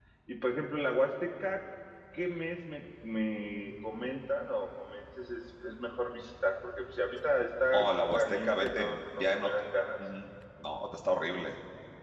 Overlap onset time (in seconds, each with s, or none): 7.7 s